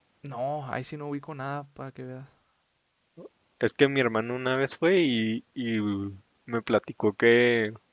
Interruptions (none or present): none